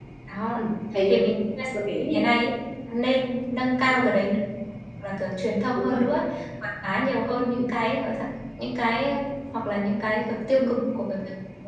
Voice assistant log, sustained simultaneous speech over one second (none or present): none